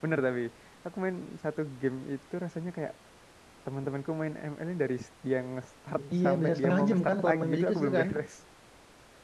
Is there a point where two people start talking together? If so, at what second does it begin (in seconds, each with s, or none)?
6.2 s